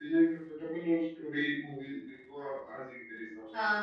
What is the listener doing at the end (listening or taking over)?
taking over